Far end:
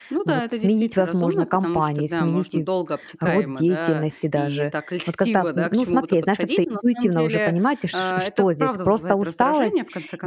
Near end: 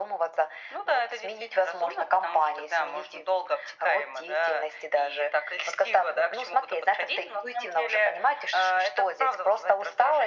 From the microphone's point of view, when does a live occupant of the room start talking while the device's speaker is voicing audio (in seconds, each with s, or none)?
none